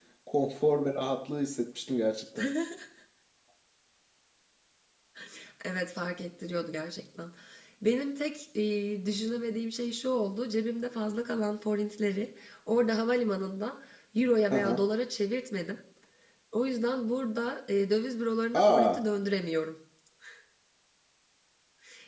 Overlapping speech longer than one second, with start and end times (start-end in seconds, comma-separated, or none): none